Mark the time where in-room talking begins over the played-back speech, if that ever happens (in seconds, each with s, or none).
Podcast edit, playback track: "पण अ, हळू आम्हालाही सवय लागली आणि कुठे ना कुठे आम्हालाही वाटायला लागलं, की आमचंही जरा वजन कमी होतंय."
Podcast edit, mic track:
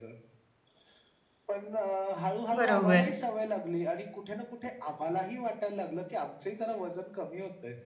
2.6 s